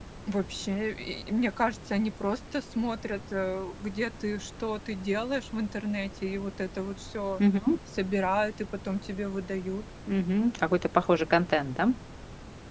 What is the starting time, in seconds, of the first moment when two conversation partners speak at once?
none

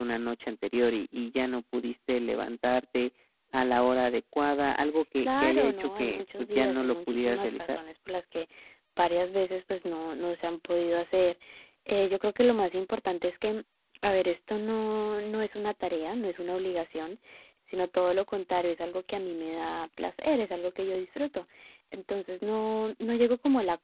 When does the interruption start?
5.2 s

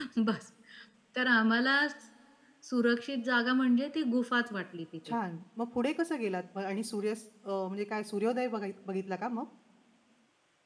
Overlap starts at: none

